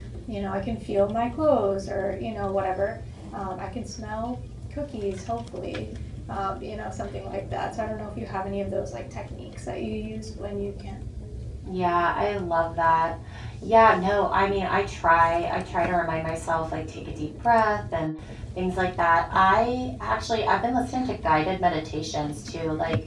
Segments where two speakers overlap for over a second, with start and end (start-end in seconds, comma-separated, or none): none